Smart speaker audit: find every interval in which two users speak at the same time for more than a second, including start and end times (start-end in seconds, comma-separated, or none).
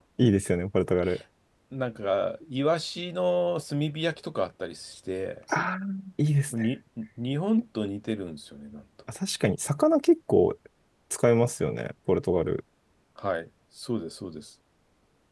none